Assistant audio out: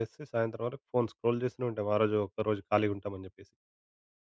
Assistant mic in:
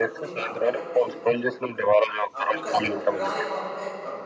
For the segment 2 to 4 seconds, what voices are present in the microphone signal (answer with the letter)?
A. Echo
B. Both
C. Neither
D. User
B